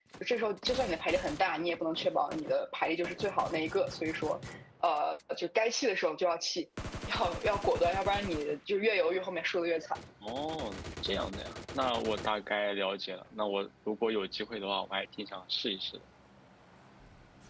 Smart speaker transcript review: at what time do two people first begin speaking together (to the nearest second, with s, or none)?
none